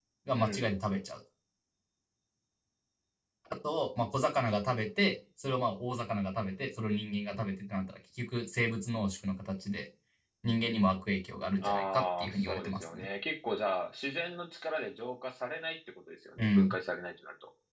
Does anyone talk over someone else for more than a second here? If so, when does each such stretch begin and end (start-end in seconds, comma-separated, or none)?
11.6-13.1